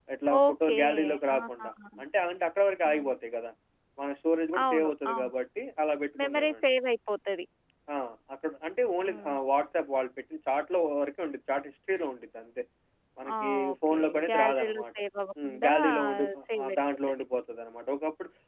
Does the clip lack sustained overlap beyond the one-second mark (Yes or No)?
No